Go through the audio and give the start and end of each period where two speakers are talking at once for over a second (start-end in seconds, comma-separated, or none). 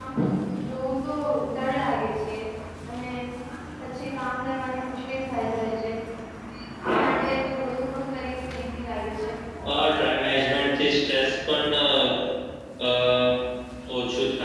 none